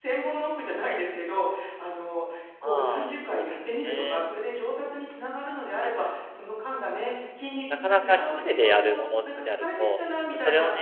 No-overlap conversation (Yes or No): No